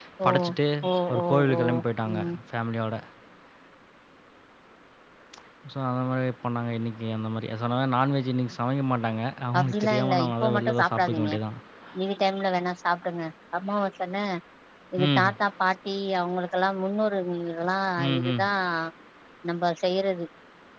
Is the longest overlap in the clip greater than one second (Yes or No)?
Yes